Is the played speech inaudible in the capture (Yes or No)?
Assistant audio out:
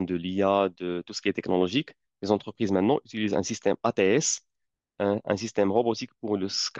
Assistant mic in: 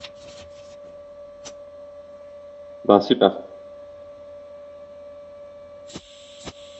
Yes